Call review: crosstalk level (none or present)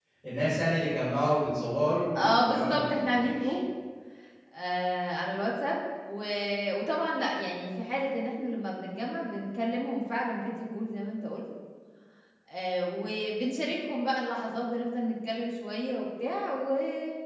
present